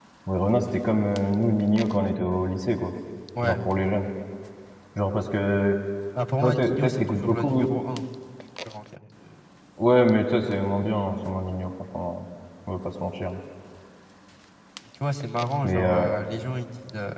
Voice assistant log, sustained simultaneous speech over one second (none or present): present